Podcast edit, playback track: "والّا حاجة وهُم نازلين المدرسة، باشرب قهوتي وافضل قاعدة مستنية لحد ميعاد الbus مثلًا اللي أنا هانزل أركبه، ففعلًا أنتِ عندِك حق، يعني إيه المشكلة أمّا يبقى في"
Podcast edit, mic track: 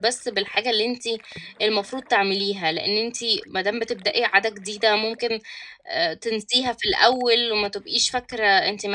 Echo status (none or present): none